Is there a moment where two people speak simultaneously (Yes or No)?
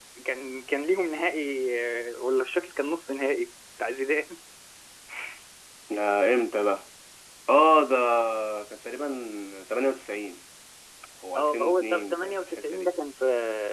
Yes